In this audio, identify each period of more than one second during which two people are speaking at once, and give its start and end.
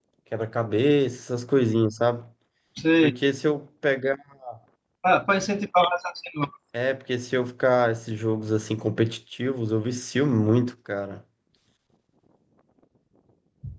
none

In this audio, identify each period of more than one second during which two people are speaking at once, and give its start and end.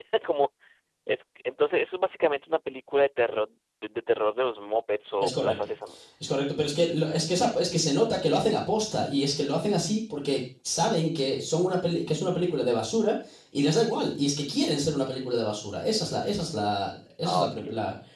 none

